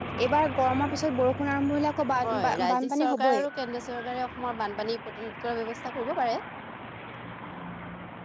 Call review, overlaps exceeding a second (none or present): present